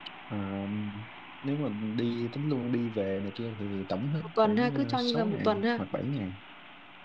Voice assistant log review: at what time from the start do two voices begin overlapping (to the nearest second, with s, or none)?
4 s